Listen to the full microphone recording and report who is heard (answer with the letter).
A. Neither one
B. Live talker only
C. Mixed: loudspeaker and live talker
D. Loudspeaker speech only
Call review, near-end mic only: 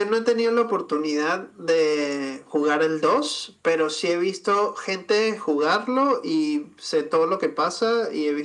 D